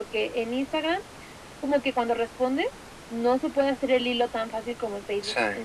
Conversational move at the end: listening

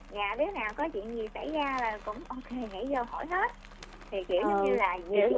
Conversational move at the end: taking over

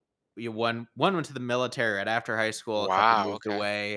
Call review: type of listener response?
listening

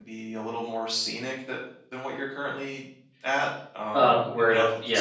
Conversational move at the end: taking over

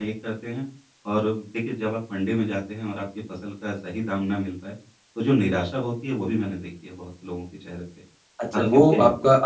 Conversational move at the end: taking over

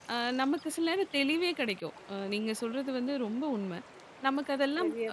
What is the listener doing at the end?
listening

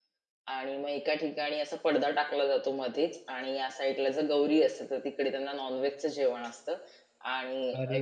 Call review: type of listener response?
taking over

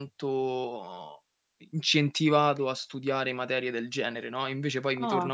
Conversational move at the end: taking over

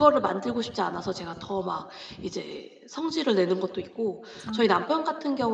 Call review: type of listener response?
listening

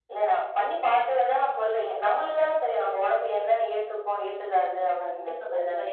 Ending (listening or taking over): taking over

